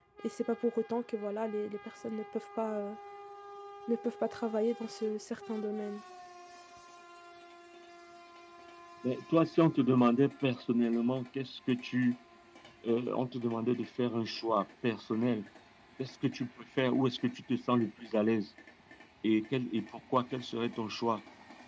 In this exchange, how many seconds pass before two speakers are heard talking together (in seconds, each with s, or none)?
none